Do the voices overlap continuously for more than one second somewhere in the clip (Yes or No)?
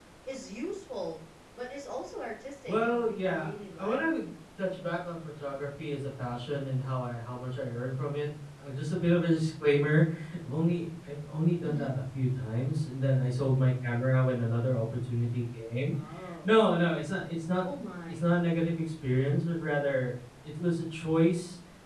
Yes